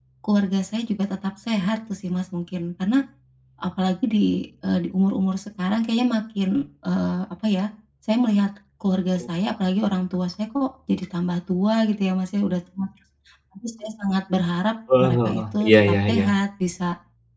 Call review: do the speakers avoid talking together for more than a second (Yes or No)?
No